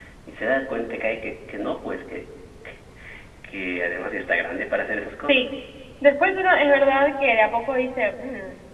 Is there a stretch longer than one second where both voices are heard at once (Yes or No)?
No